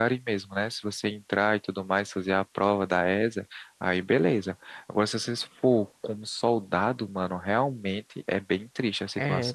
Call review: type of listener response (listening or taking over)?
taking over